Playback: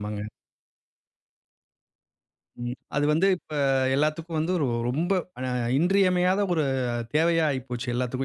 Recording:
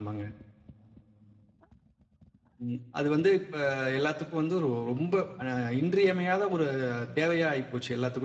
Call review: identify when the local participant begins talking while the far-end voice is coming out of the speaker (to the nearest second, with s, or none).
none